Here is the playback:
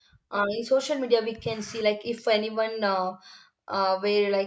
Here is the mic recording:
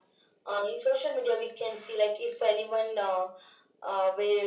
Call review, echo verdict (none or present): present